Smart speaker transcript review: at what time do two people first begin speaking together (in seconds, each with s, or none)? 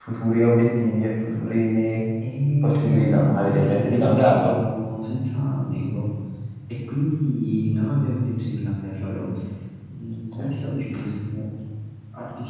2.6 s